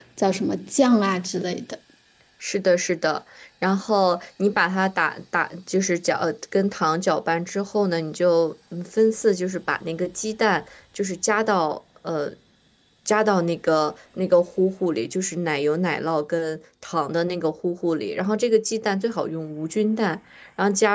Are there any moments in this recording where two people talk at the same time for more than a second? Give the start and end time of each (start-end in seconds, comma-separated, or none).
none